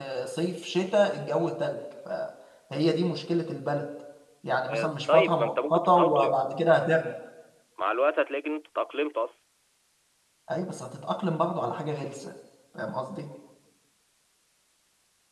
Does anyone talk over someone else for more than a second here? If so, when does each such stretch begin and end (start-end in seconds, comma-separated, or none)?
4.7-6.4